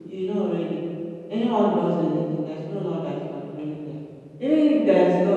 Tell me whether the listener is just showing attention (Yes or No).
Yes